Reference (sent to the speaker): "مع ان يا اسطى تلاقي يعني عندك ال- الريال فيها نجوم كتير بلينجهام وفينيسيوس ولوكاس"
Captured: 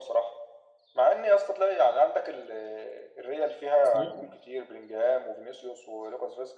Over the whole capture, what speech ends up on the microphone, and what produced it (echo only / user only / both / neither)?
both